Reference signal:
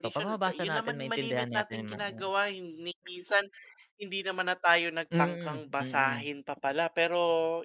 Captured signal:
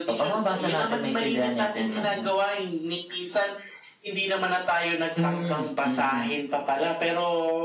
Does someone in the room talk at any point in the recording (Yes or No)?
No